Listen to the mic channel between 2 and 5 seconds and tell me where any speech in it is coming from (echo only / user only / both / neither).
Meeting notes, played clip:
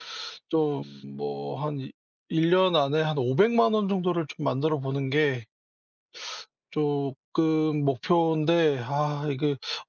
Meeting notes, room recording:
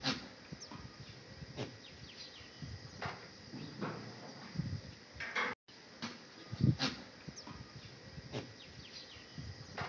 neither